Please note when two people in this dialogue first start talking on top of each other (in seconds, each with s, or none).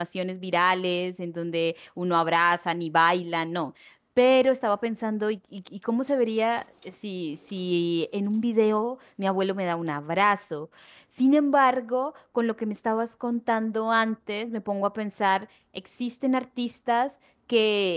none